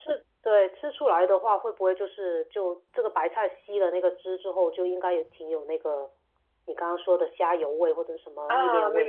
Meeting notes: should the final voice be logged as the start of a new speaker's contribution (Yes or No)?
Yes